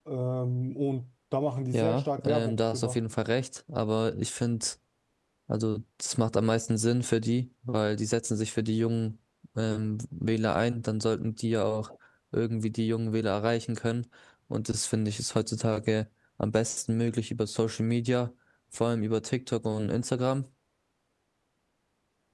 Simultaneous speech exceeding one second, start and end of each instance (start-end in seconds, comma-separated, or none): 1.7-3.0